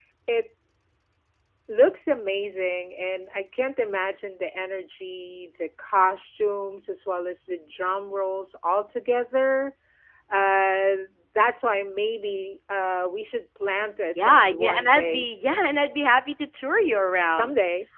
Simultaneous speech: Yes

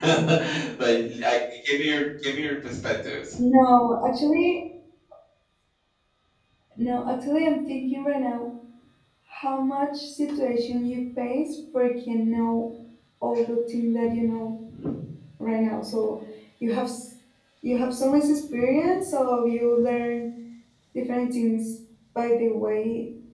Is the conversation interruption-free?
Yes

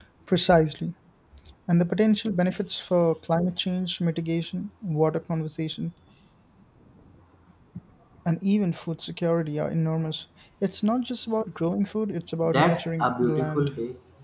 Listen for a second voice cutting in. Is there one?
Yes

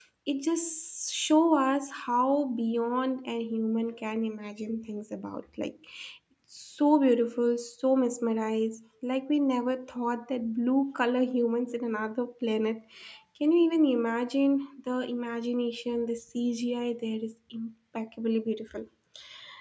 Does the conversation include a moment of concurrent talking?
No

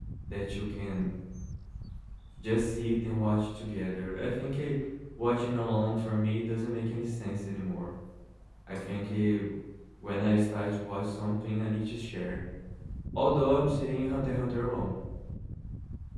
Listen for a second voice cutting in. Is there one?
No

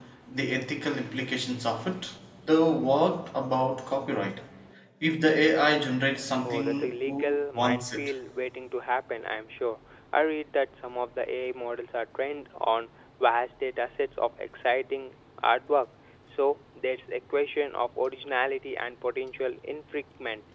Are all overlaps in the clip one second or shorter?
No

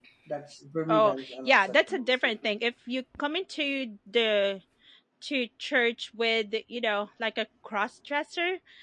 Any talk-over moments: Yes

